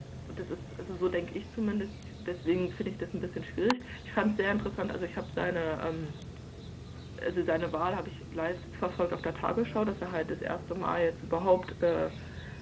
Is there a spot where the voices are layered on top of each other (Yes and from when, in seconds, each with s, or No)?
No